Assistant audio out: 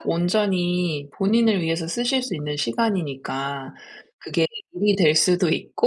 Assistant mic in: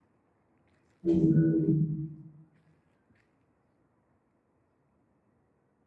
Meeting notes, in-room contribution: present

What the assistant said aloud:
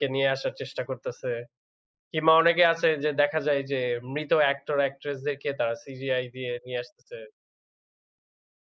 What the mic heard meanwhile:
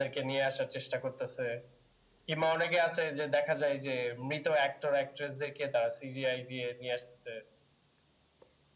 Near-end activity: none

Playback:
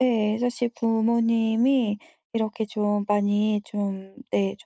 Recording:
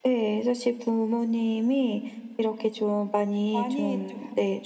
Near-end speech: present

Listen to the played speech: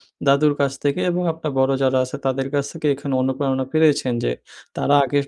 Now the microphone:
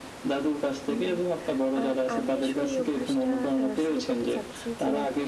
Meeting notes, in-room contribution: present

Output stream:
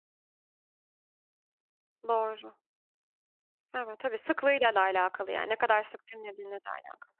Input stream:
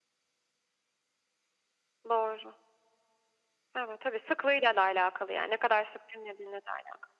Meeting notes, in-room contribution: none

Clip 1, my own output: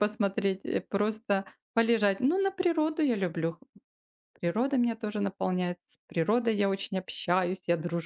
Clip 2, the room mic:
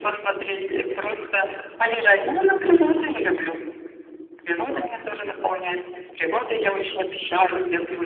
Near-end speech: none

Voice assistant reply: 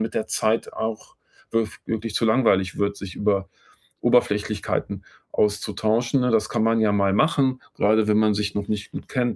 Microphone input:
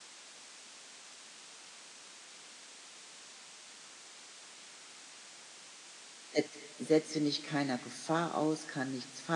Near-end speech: present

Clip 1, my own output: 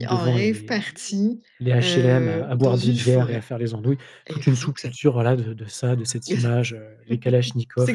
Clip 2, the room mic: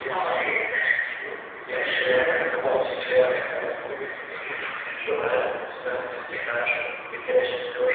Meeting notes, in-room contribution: none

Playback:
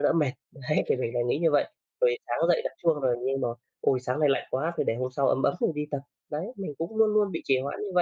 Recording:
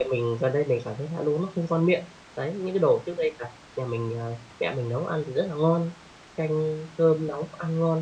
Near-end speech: present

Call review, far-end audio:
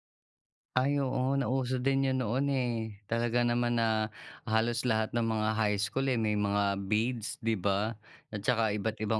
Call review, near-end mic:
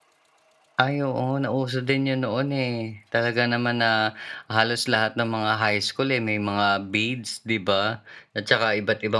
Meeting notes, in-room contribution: none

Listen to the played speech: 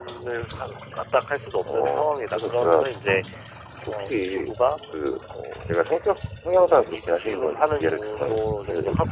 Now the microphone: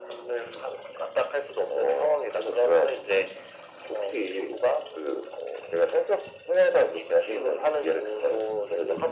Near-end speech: none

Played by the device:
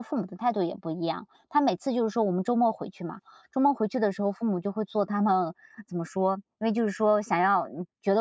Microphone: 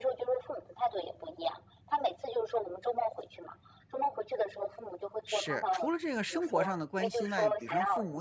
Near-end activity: present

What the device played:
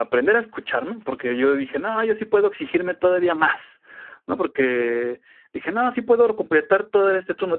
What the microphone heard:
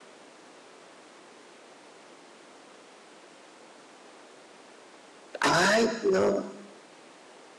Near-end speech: present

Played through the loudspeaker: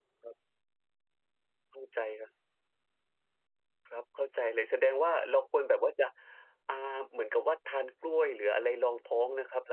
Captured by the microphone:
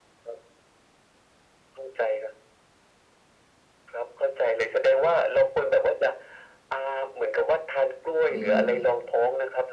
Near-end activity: present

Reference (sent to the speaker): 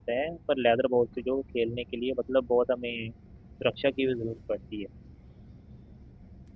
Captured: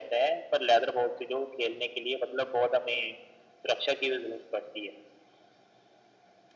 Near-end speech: none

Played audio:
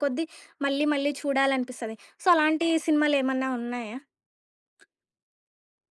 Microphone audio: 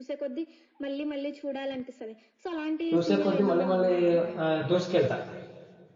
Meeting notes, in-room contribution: present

